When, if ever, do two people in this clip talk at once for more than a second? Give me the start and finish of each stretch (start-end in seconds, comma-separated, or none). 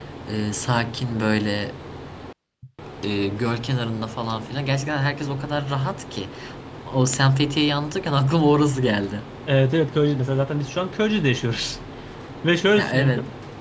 none